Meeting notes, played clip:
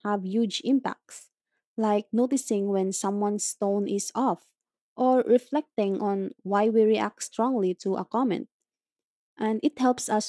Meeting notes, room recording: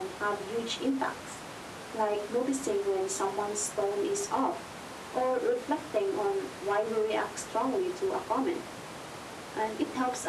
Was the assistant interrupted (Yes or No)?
No